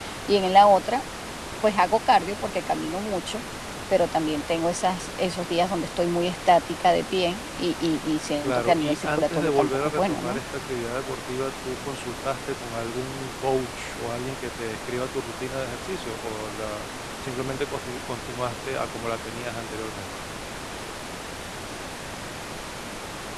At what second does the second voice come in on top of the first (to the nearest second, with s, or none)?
8 s